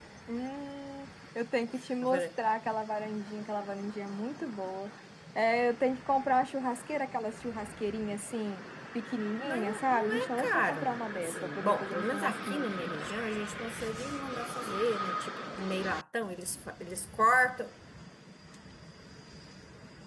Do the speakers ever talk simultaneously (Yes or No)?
Yes